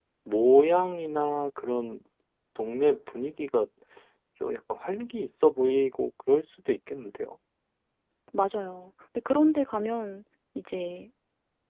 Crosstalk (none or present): none